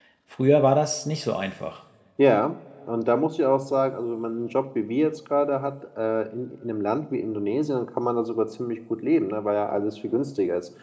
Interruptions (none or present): none